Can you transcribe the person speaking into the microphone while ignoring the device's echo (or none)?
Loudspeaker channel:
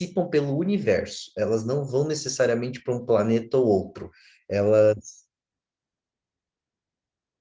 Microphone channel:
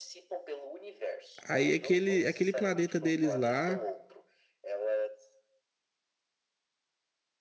Aí aquele, aquele planeta deles lá,